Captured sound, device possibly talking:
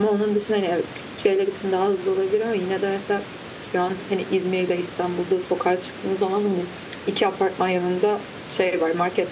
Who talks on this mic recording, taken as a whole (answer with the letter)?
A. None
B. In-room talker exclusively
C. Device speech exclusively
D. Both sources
B